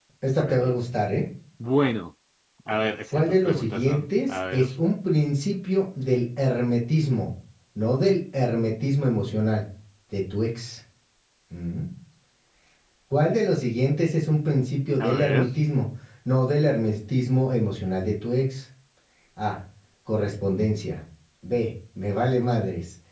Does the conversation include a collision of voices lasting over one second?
Yes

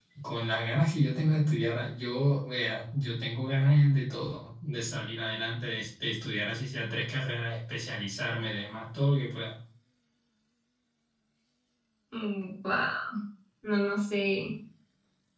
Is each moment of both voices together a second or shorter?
Yes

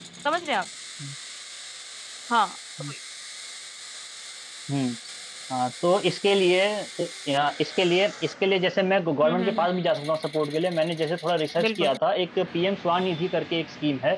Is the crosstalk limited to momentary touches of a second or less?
Yes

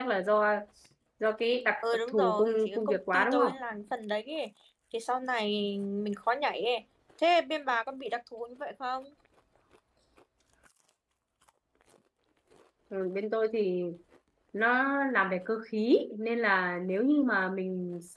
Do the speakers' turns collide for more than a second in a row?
Yes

